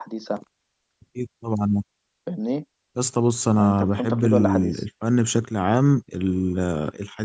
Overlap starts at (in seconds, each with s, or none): 3.5 s